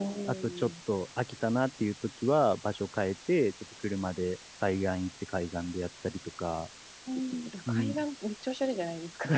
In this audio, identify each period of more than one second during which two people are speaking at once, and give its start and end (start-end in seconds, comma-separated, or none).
none